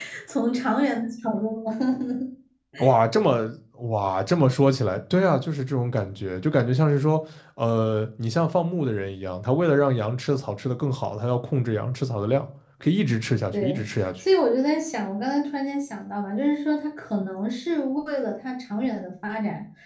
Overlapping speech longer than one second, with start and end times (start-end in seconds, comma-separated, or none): none